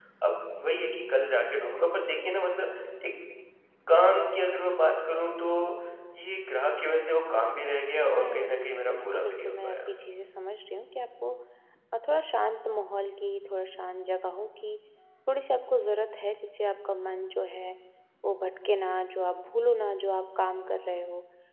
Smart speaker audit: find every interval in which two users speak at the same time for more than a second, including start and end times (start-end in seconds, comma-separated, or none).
8.2-9.8